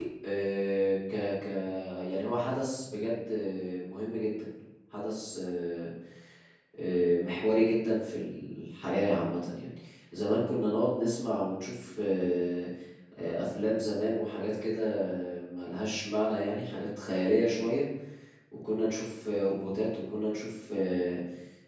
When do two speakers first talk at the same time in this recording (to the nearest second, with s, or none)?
none